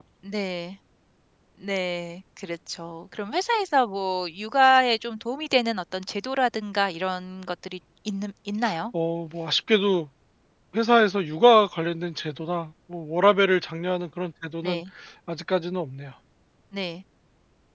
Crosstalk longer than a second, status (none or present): none